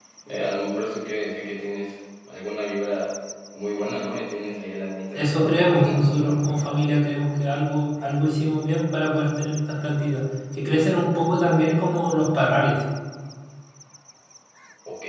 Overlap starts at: 5.2 s

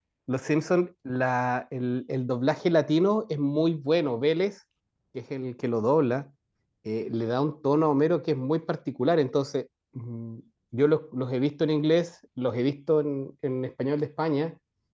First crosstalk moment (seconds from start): none

